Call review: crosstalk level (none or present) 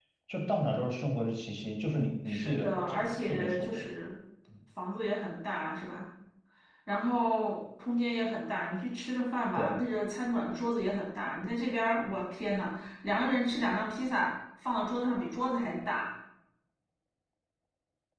present